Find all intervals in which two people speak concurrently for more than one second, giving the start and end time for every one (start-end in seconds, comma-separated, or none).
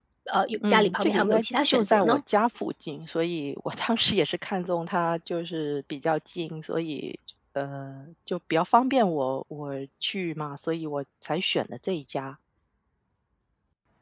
0.7-2.2